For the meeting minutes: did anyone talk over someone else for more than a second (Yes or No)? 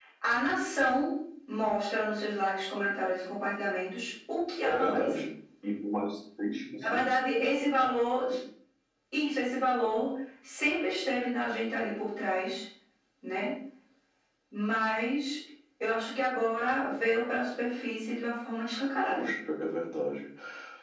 No